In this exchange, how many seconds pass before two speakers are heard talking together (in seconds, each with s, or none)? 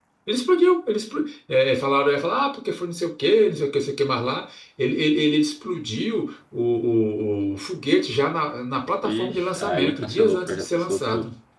9.0 s